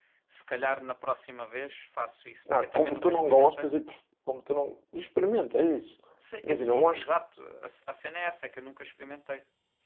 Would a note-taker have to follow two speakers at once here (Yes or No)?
Yes